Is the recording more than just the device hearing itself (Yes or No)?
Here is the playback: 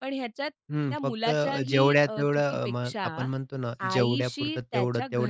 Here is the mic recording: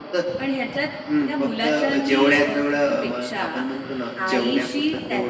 No